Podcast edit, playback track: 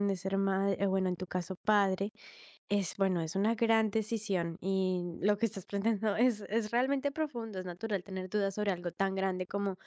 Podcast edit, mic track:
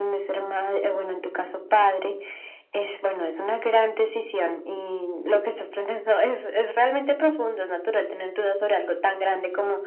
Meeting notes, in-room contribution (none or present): none